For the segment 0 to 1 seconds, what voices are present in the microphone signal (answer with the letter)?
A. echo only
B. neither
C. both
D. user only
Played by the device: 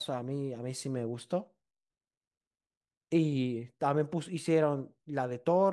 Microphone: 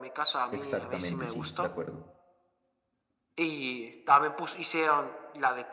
C